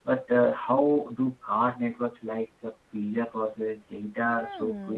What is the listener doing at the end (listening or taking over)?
taking over